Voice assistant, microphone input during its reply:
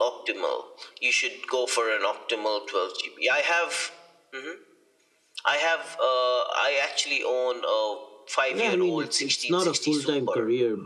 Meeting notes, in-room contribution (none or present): present